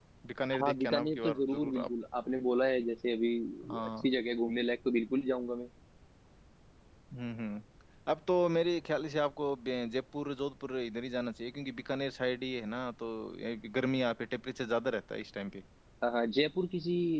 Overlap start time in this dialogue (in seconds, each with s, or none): 0.6 s